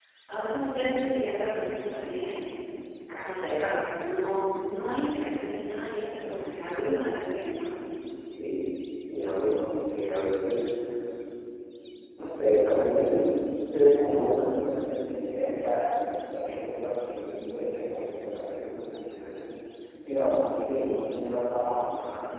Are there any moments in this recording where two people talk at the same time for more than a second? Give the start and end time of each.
none

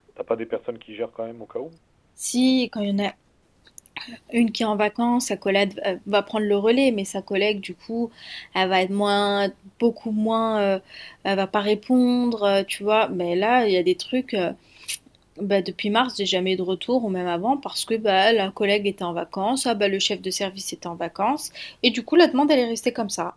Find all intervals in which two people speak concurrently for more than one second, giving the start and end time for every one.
none

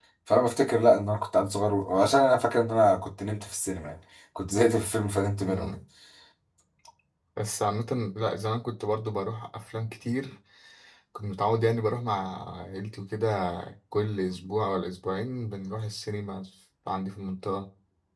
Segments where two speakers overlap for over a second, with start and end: none

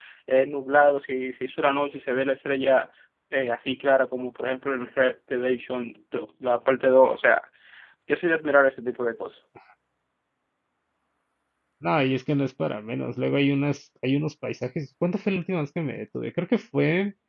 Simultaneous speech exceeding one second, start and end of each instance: none

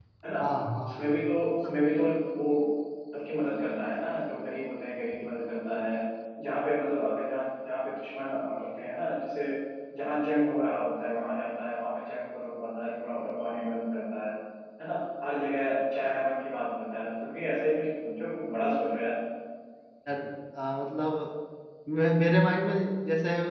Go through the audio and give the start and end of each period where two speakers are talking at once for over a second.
none

